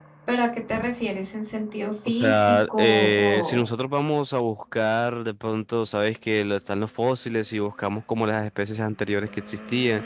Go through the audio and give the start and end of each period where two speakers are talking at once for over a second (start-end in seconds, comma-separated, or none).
2.1-3.7